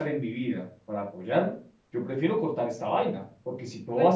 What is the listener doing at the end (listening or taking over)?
listening